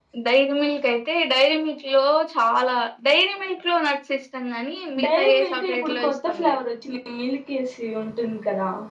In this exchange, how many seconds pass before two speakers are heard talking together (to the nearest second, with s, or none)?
5 s